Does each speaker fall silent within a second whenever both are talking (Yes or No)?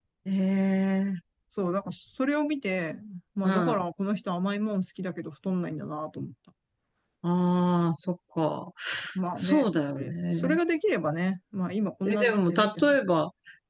No